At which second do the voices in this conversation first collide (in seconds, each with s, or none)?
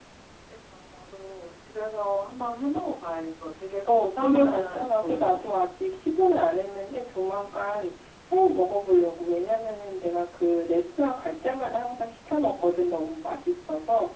3.8 s